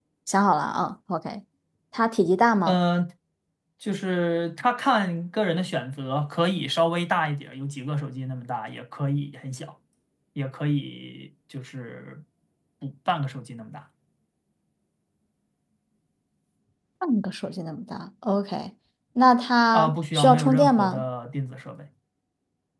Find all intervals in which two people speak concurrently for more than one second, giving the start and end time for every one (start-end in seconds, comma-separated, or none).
19.7-21.0